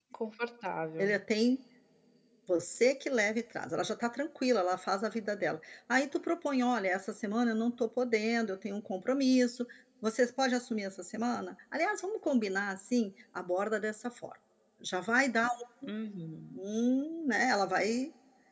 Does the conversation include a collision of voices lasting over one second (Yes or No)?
No